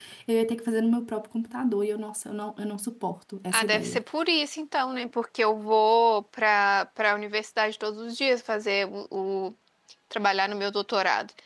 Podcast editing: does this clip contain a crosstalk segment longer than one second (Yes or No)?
No